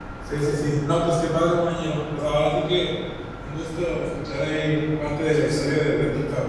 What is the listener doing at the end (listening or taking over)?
listening